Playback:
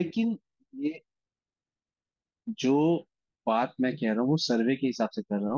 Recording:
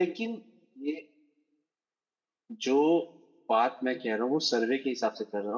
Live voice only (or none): none